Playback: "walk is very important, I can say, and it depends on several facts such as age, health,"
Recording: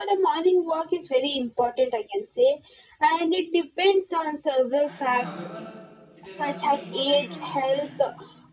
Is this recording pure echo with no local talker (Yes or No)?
No